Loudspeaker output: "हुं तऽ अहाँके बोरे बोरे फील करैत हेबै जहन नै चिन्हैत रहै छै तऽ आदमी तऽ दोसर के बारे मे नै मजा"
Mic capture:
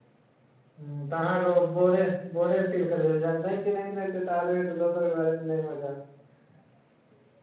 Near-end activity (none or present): none